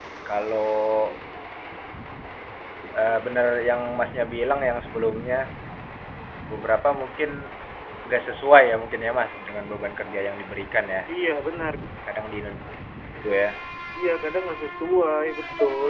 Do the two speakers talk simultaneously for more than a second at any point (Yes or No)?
No